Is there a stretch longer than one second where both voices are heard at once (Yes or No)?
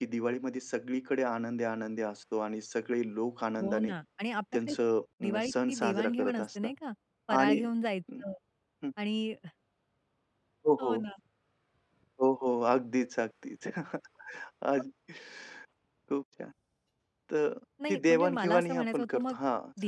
Yes